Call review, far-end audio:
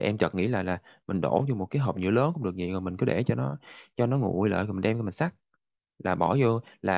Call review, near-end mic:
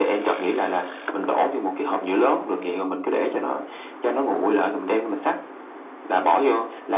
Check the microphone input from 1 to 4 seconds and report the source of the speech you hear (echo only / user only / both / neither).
echo only